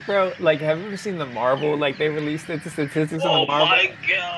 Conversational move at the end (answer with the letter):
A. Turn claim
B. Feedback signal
A